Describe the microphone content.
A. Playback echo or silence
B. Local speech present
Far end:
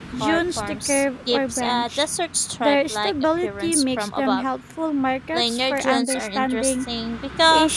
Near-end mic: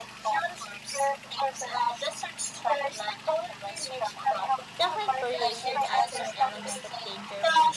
B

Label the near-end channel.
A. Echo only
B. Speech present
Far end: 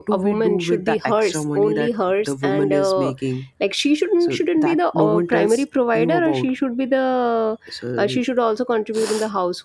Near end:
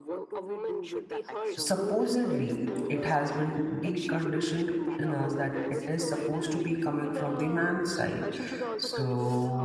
B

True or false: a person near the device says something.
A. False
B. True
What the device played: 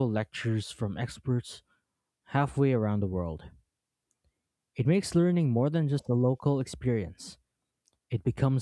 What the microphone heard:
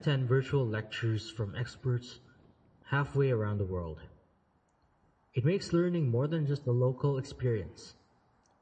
A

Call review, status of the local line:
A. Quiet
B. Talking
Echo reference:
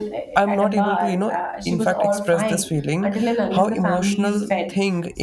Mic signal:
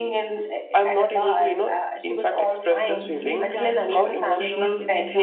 B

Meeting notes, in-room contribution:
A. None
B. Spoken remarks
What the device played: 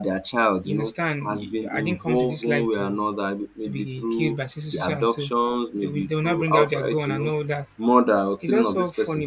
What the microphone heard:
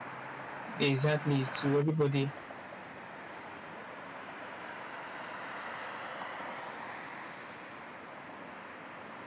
B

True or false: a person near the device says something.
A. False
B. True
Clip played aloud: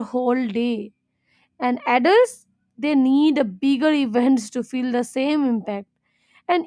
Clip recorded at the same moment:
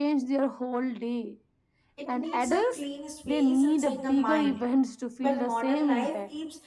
B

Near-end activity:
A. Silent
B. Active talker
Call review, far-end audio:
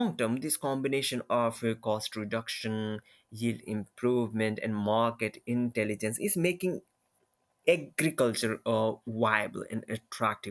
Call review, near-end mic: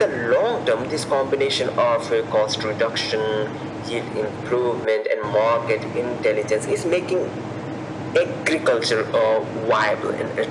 A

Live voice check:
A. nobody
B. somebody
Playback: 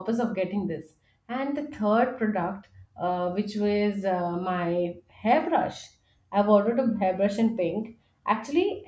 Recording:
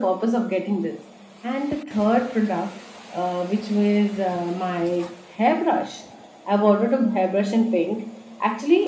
A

